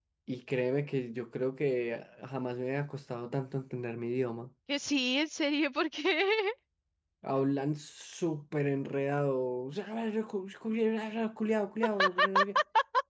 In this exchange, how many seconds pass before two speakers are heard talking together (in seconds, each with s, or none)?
none